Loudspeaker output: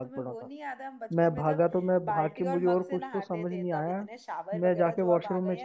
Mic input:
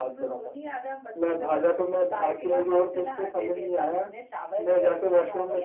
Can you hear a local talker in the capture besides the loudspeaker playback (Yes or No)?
No